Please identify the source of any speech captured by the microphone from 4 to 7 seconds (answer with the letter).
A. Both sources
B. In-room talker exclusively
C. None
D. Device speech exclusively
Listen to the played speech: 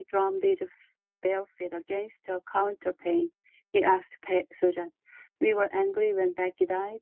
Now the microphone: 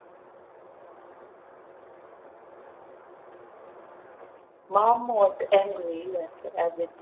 B